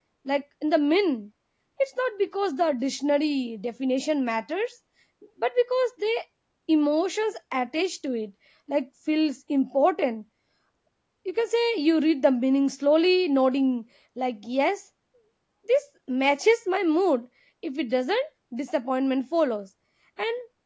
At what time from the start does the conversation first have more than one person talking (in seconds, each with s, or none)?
none